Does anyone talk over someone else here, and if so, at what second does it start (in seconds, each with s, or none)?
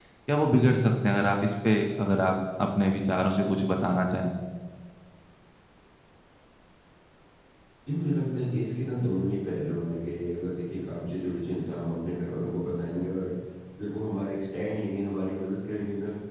none